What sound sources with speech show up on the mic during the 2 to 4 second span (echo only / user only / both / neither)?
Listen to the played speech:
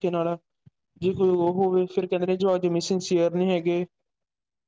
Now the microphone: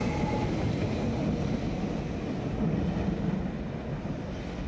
neither